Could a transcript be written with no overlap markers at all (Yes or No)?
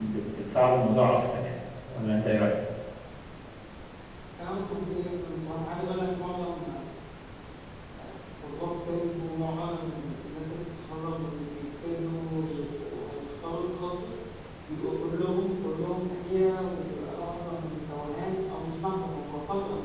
Yes